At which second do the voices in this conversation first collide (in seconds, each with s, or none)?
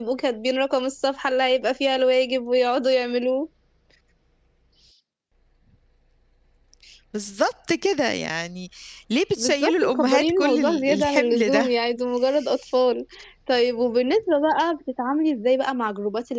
9.4 s